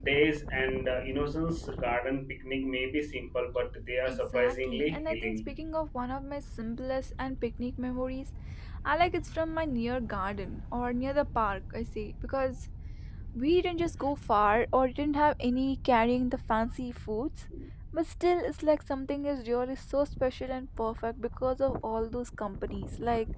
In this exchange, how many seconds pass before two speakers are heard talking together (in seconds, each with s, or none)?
4.1 s